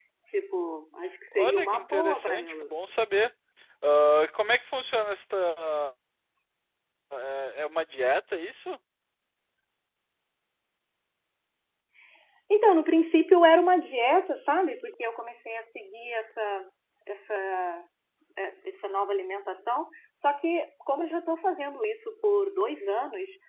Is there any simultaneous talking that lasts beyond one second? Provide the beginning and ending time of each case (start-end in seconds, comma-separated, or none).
1.4-2.7